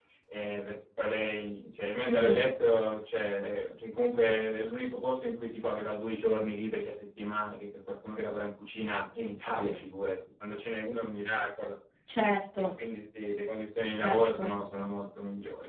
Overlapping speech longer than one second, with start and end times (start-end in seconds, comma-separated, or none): none